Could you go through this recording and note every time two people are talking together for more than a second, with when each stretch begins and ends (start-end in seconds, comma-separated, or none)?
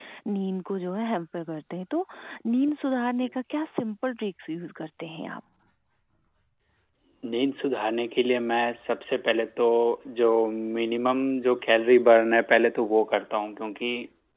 none